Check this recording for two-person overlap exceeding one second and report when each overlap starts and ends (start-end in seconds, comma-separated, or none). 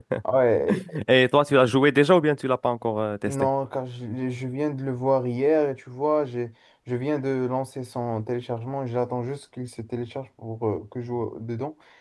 none